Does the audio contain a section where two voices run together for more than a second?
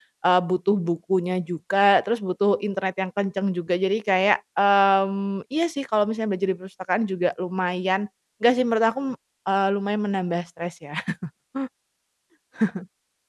No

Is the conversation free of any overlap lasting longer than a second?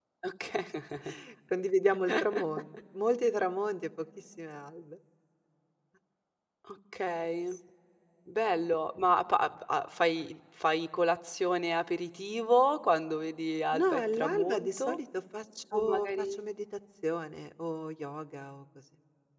No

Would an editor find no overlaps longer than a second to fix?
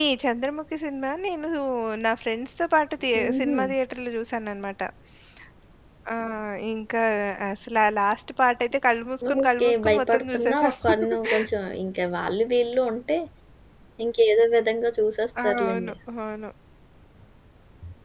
No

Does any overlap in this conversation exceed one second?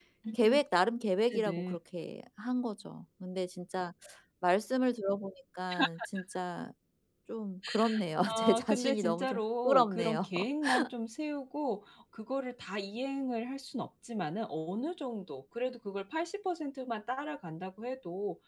Yes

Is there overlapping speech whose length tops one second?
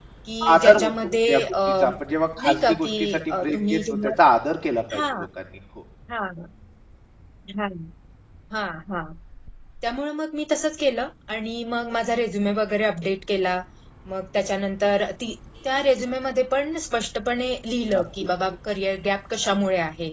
Yes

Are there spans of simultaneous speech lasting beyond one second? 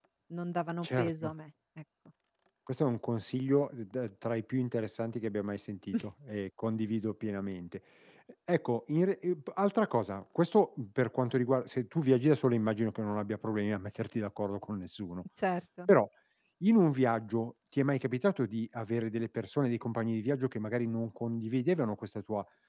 No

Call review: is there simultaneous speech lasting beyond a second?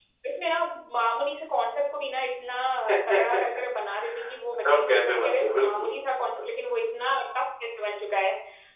Yes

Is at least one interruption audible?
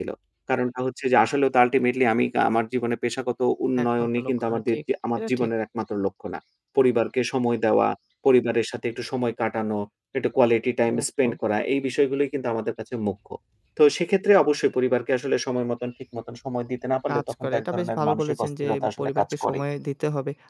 Yes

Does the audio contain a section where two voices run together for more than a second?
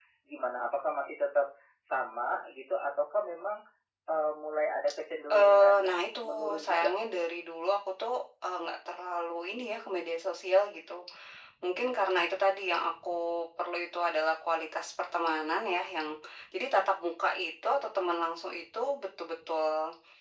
Yes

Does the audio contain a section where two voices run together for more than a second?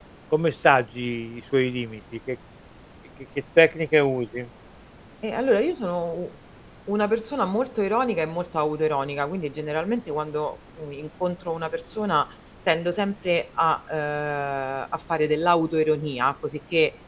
No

